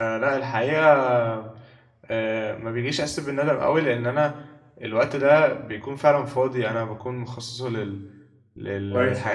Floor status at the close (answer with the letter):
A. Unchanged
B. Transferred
A